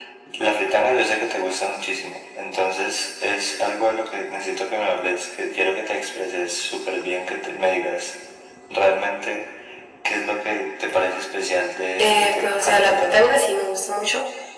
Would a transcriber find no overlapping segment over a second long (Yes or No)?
No